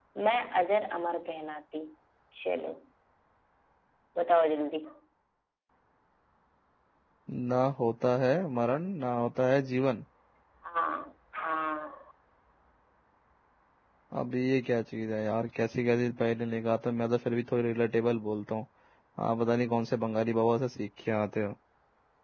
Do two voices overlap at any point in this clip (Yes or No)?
No